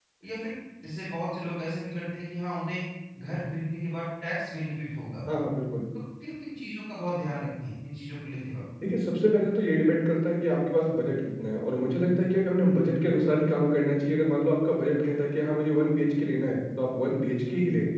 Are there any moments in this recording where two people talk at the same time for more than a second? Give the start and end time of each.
none

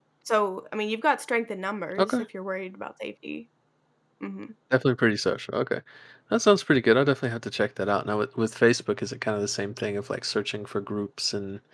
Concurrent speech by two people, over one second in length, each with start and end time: none

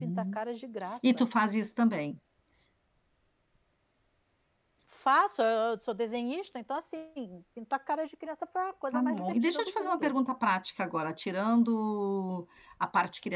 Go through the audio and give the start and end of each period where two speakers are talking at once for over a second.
8.9-10.1

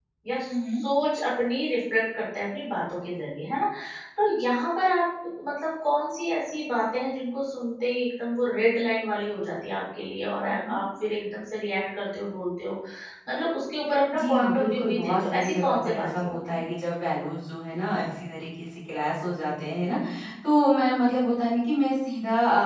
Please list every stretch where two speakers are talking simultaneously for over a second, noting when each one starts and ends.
14.2-16.6

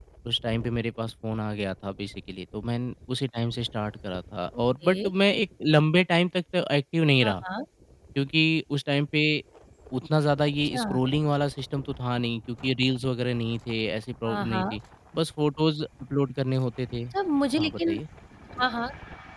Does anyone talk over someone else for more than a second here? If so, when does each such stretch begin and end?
none

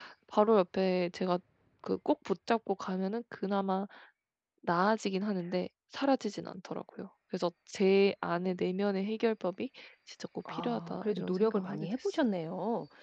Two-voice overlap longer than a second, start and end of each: 10.5-12.2

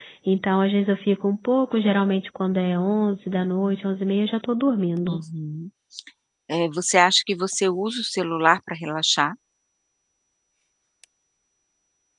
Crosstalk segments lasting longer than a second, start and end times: none

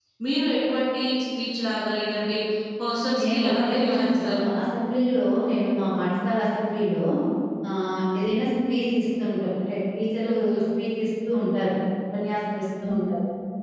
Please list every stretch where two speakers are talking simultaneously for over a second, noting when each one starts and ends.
3.2-4.5

